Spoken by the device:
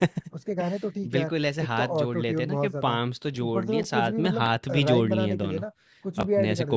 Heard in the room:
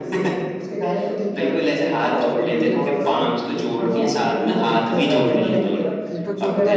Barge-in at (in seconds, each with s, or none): 2.2 s